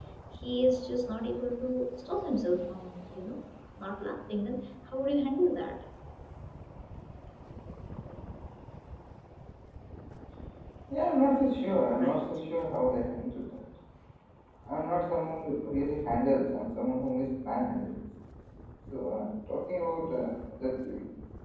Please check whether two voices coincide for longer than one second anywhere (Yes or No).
No